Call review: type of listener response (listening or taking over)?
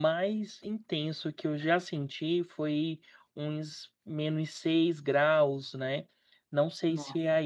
listening